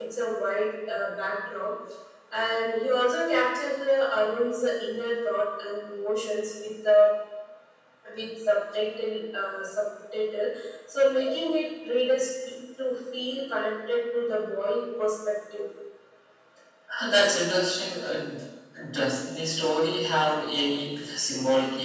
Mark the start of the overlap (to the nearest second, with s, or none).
none